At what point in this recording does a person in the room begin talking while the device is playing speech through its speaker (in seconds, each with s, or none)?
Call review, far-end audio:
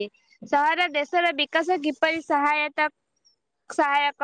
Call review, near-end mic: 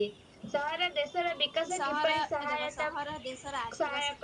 1.7 s